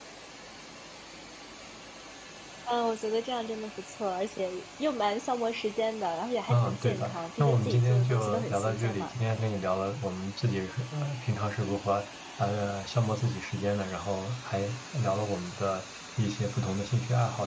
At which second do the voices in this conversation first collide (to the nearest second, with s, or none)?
6 s